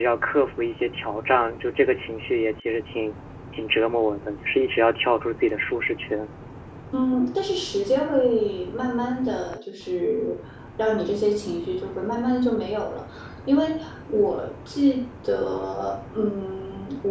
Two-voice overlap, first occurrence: none

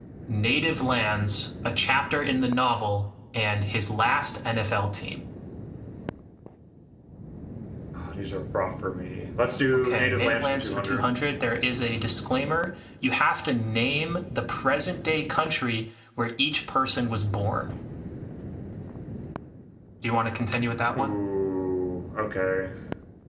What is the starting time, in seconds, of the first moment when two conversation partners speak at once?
10 s

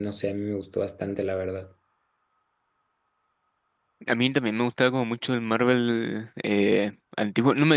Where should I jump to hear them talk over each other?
none

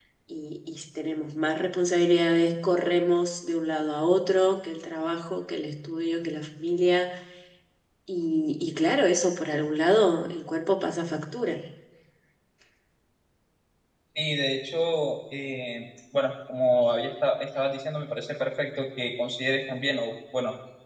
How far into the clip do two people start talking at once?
none

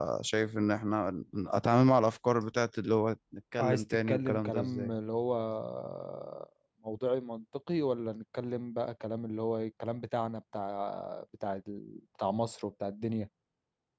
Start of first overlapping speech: 4 s

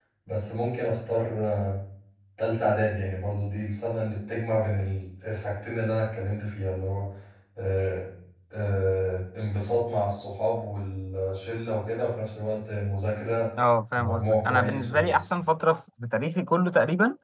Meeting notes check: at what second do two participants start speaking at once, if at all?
14 s

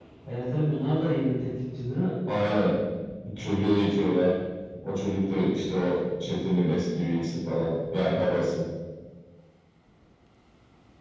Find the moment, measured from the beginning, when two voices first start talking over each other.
none

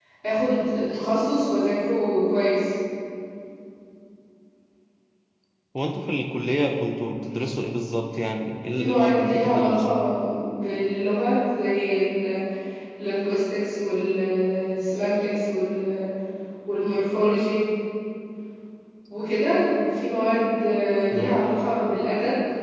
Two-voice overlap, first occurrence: 9 s

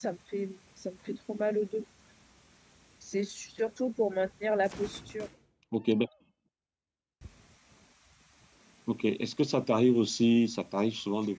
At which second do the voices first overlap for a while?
none

